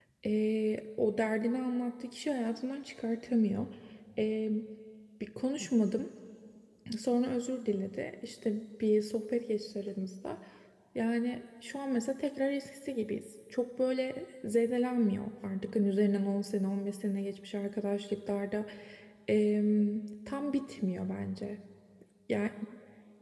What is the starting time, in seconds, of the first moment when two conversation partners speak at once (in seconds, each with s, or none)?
none